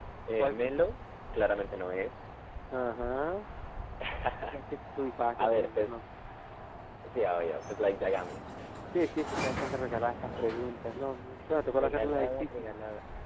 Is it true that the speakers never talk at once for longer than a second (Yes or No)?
No